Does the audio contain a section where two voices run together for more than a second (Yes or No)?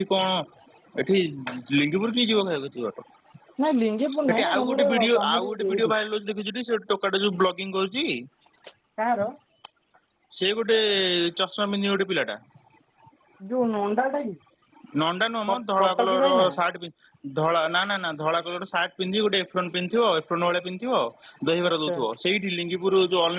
Yes